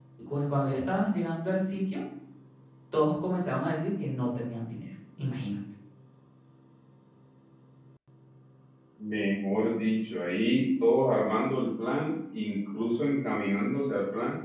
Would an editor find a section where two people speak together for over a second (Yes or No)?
No